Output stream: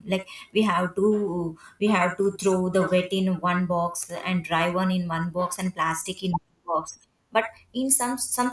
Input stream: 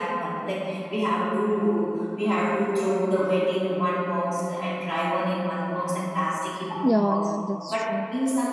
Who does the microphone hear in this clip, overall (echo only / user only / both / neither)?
both